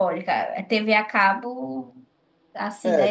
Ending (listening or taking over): listening